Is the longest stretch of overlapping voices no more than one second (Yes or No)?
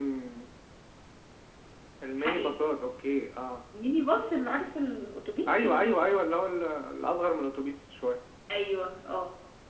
Yes